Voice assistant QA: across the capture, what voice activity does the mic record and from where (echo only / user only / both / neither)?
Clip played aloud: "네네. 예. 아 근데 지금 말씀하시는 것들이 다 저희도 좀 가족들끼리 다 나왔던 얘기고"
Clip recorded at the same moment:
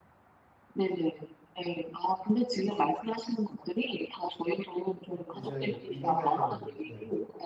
both